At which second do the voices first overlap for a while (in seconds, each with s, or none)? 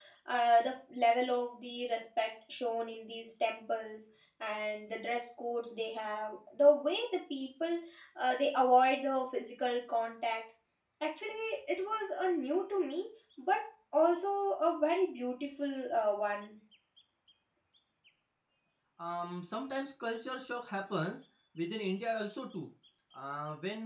none